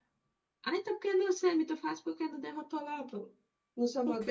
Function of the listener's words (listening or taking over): taking over